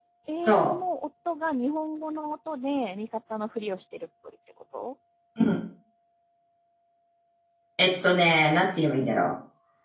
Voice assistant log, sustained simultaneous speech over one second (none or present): none